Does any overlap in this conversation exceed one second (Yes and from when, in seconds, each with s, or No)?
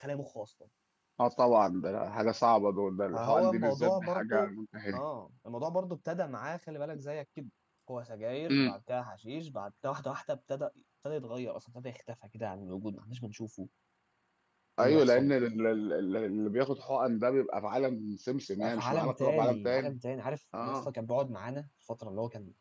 Yes, from 3.1 s